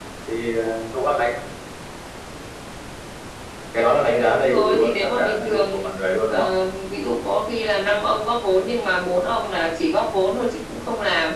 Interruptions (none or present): present